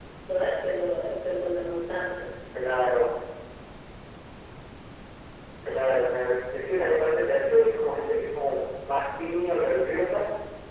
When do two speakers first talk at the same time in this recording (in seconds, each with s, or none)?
none